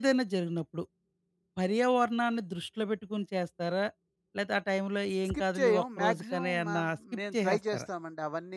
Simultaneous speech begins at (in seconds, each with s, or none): 5.2 s